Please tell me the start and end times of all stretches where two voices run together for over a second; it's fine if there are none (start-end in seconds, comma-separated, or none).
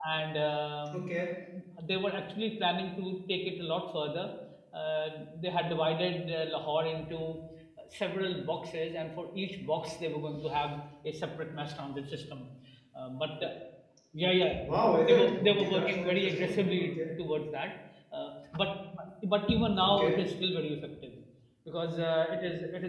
15.1-16.9